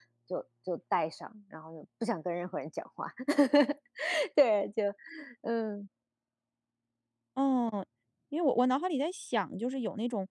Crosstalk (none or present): none